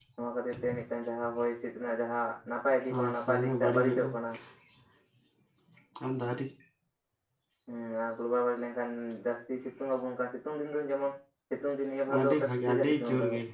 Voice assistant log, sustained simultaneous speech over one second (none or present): present